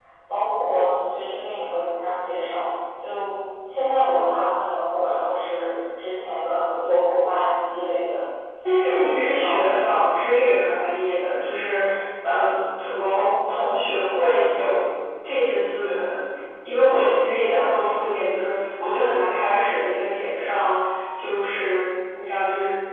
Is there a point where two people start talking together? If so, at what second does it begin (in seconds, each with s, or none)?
8.8 s